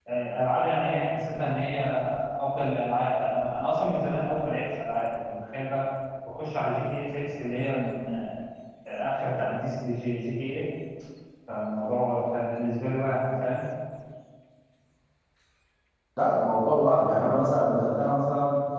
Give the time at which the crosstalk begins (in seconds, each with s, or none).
none